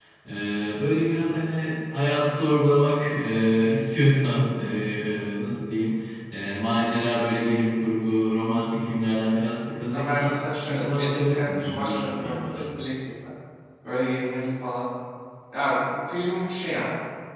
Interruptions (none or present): present